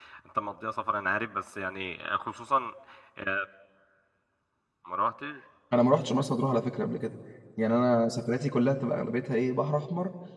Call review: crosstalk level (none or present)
none